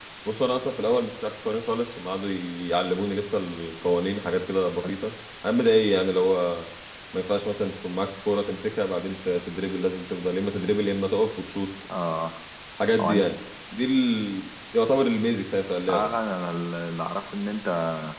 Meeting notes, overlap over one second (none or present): none